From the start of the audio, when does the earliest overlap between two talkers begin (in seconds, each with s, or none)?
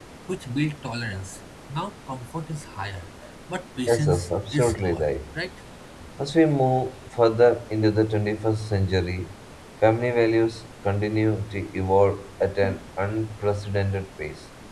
3.9 s